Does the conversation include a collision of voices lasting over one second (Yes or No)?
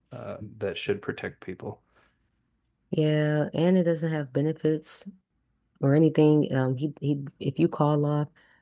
No